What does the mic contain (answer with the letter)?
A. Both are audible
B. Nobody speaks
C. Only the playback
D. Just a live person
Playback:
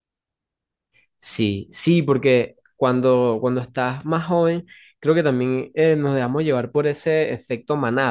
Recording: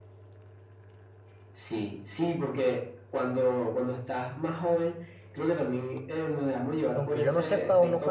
A